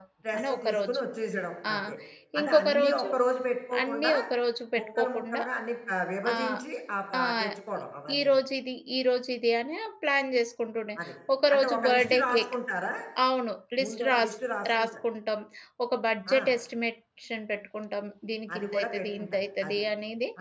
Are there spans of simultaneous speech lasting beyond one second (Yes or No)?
Yes